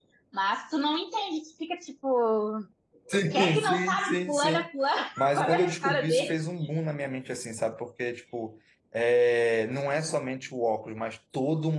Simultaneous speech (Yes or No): Yes